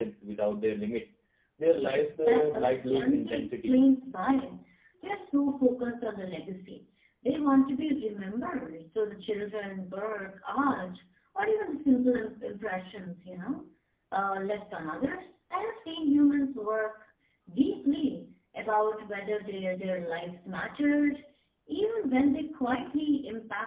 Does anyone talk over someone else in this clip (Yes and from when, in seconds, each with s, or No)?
Yes, from 1.8 s